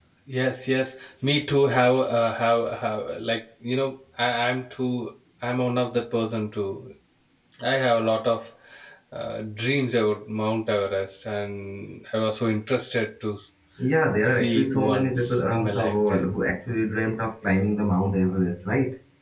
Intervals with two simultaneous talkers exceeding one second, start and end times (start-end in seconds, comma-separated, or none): 14.2-16.2